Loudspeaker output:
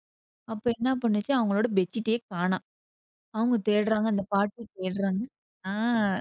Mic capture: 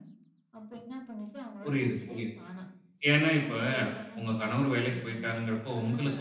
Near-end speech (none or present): present